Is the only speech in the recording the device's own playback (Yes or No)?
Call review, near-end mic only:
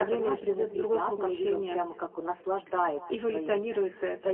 Yes